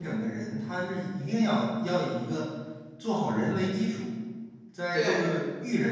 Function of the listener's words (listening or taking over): listening